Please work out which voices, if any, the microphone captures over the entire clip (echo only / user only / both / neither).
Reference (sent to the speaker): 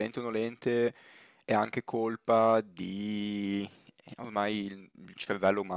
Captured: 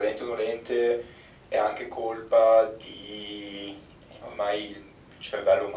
echo only